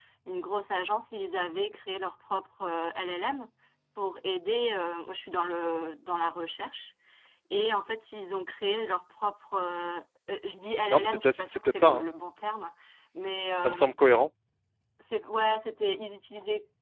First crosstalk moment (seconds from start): 11 s

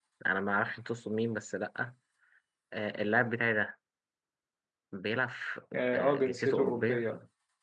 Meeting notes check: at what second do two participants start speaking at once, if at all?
6 s

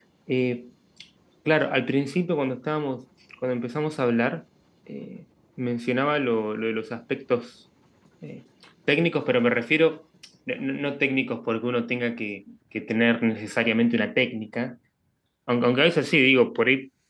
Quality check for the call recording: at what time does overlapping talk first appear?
none

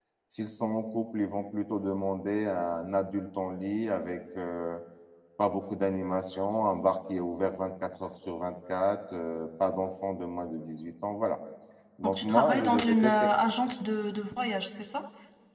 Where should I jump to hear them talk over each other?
12 s

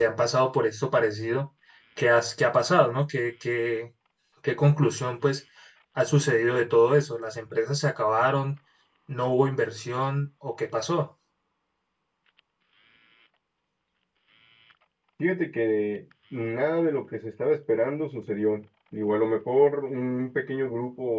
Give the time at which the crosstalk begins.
none

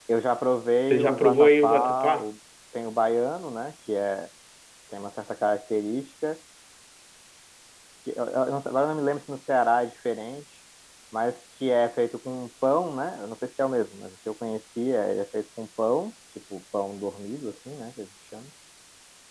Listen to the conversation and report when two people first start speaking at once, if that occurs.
1 s

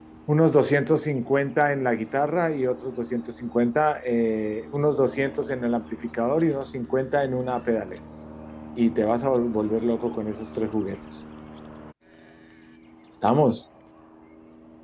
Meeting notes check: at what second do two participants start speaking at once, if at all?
none

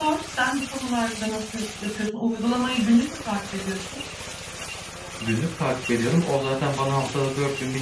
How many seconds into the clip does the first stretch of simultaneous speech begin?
none

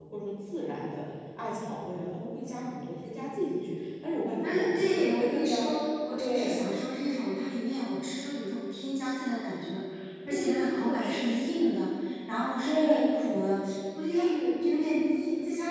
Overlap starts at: 4 s

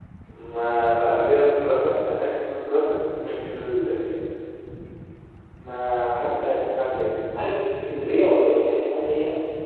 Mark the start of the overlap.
none

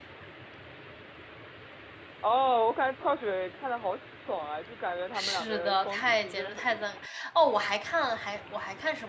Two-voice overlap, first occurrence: 5 s

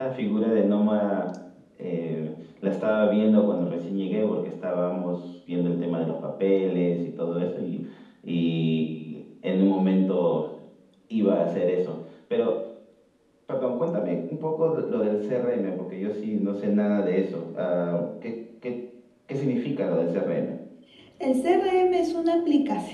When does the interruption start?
none

